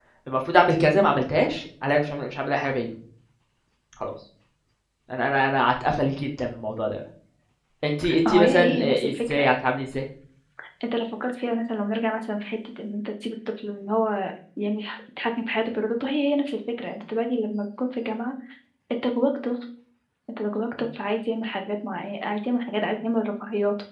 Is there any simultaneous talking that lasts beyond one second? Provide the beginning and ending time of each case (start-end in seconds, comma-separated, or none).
8.2-9.5